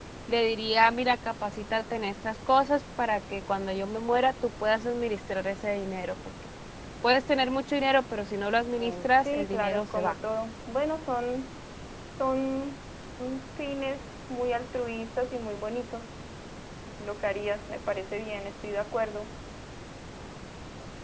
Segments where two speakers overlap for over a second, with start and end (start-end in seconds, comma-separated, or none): 8.8-10.2